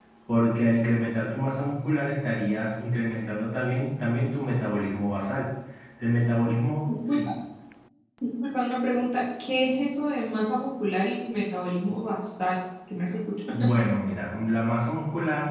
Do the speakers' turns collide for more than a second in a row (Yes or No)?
No